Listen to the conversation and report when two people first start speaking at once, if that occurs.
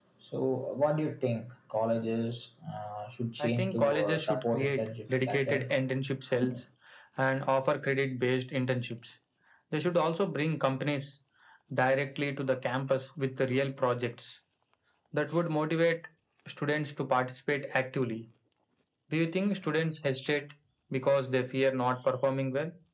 3.4 s

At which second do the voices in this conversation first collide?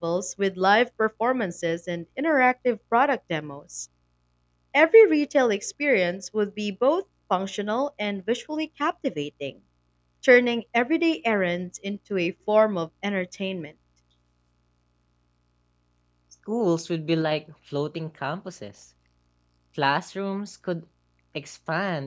none

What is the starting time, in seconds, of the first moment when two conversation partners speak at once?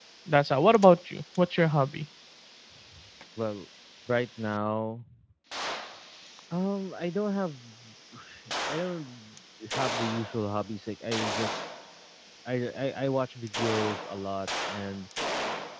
none

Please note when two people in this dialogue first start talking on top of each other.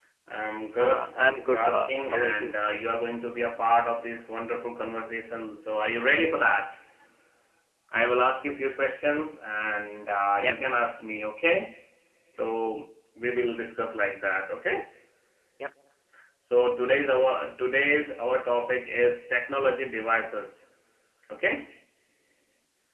0.8 s

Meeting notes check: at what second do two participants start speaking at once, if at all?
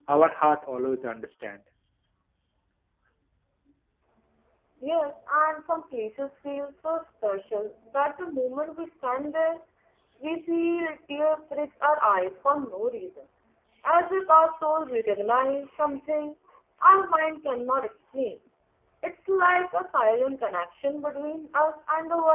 none

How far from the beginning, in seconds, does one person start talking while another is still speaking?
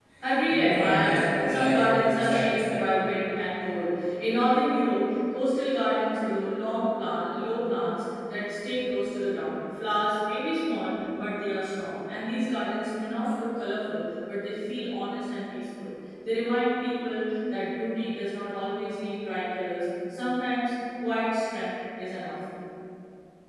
0.5 s

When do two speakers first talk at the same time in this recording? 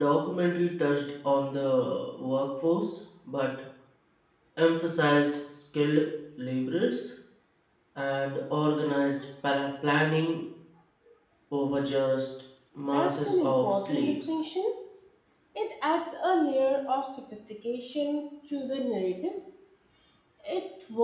12.8 s

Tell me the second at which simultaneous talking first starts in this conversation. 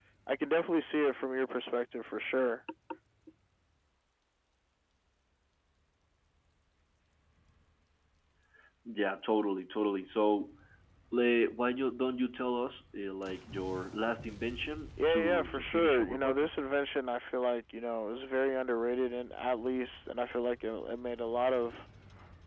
15.0 s

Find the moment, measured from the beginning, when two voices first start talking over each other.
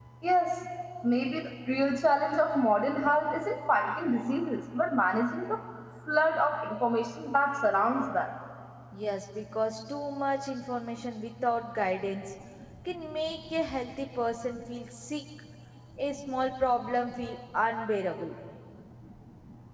none

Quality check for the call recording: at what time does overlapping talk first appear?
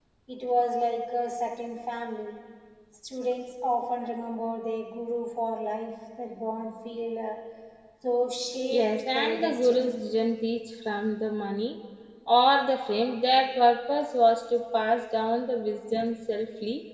8.7 s

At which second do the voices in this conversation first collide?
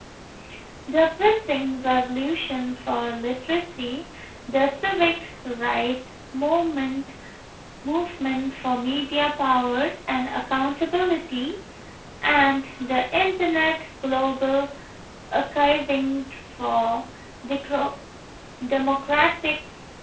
none

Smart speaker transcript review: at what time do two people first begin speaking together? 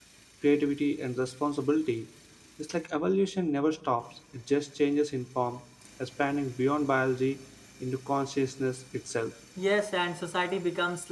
none

